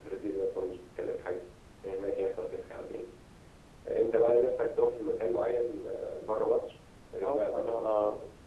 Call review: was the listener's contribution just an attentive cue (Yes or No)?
No